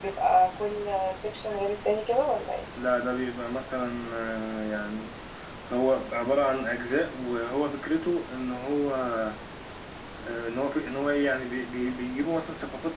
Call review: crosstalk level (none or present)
none